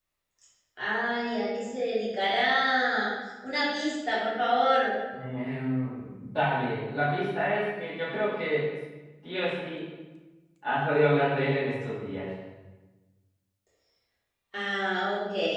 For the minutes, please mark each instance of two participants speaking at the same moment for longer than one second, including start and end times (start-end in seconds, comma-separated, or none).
none